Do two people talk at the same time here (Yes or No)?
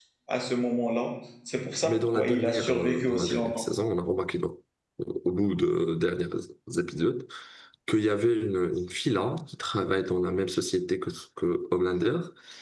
Yes